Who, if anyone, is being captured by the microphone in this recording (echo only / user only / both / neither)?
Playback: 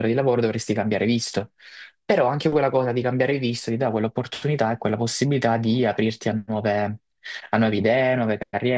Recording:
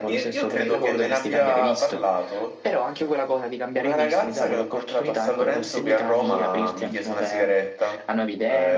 both